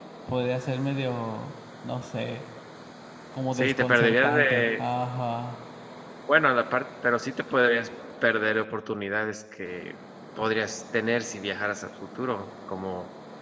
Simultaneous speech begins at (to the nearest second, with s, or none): 4 s